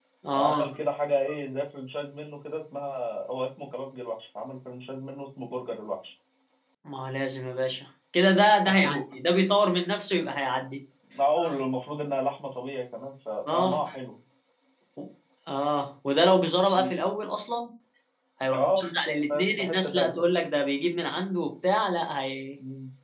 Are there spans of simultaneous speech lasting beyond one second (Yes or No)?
Yes